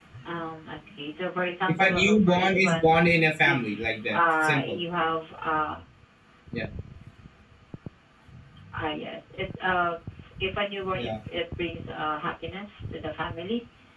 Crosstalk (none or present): present